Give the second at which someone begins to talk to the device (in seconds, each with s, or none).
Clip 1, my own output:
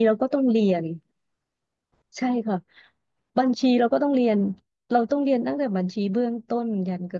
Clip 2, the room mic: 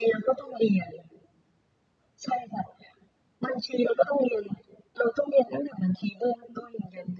none